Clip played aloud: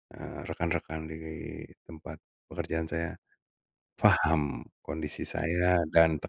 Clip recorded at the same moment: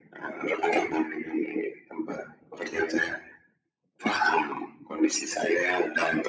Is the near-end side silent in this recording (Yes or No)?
Yes